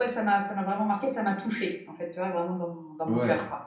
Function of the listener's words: taking over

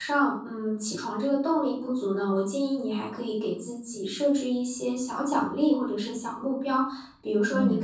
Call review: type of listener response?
listening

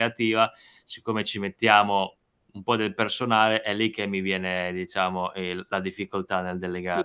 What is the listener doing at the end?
taking over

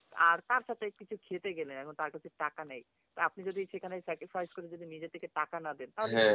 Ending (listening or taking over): taking over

